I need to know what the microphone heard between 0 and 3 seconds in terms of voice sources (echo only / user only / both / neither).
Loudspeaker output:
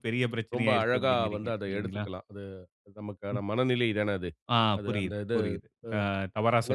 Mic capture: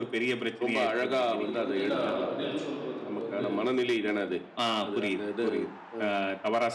both